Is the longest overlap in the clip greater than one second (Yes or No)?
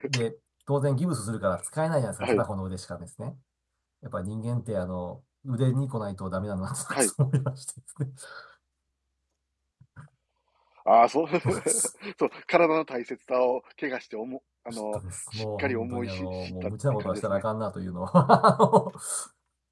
Yes